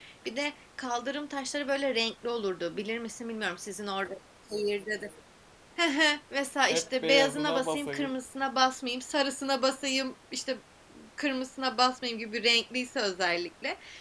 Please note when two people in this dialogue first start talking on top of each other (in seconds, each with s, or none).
6.7 s